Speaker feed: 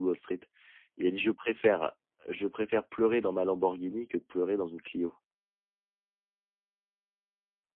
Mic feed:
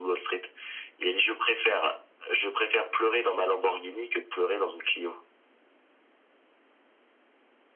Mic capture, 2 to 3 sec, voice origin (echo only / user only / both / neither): echo only